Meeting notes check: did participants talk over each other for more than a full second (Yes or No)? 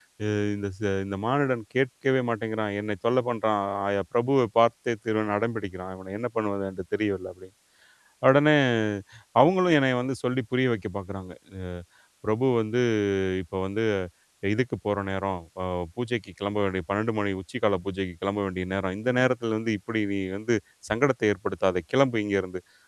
No